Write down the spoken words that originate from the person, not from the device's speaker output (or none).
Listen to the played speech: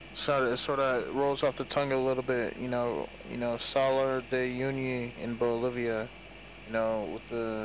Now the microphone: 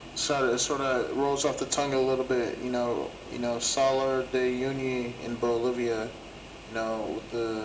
none